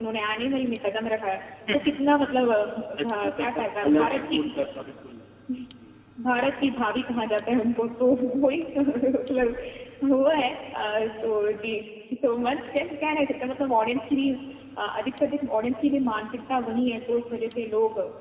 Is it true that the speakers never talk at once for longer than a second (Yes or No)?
No